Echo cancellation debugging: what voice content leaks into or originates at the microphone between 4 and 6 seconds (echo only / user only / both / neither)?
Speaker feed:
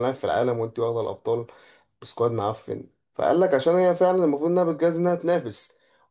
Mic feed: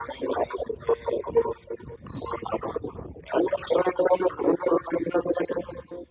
echo only